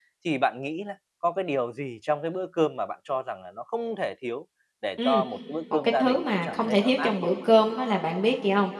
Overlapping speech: Yes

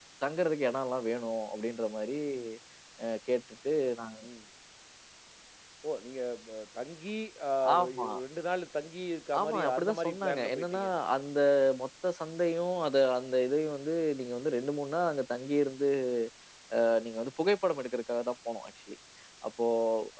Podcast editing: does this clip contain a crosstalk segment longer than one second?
Yes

